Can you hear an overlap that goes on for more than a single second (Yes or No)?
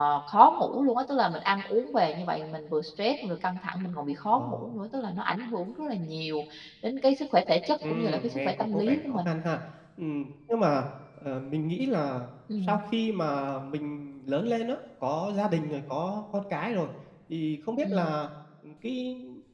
Yes